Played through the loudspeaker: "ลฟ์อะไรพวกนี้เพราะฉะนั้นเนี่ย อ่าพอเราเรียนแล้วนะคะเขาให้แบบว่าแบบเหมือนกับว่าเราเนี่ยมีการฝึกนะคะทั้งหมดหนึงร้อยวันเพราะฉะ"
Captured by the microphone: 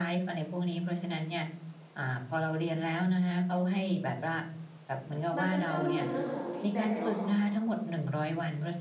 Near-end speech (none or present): present